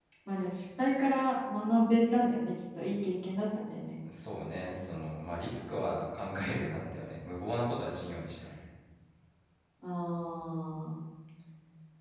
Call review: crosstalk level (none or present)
none